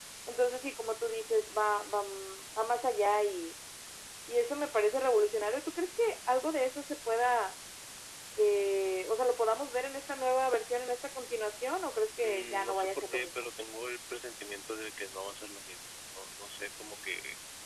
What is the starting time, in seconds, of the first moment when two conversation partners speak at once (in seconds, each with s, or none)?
12.2 s